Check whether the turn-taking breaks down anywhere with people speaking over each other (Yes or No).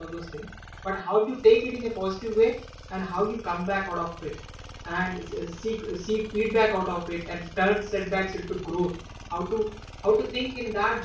No